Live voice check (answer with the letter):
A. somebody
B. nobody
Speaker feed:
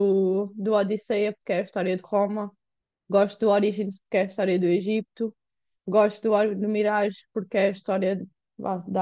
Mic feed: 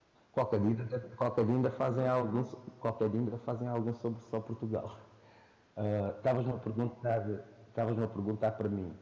A